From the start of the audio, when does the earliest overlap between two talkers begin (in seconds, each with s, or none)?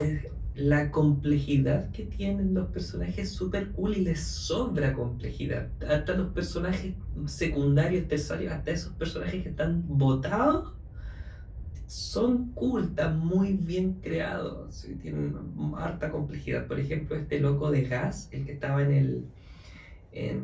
none